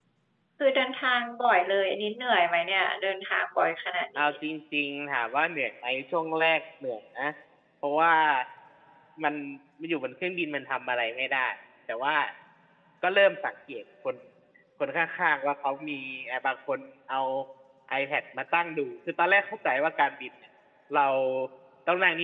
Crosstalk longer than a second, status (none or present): none